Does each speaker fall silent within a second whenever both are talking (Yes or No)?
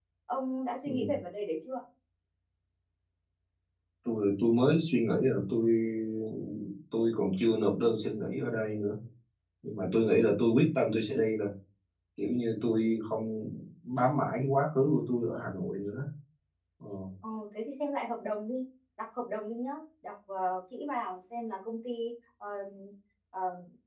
Yes